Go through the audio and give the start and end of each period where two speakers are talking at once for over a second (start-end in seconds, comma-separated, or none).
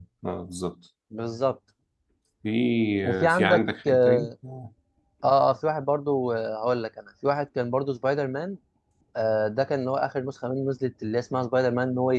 3.0-4.3